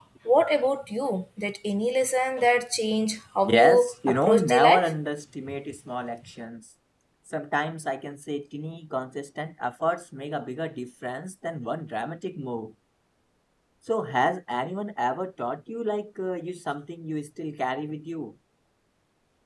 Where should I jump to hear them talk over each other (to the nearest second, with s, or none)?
3 s